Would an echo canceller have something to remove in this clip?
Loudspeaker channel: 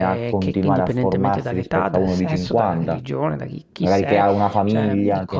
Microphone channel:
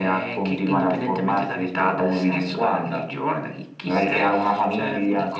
Yes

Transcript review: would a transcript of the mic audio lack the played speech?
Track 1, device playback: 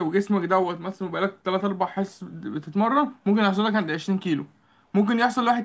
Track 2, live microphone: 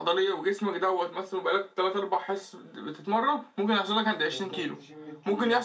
No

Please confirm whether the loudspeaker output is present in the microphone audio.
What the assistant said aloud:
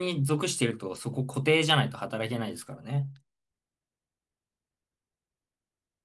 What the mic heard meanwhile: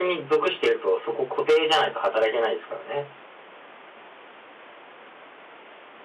Yes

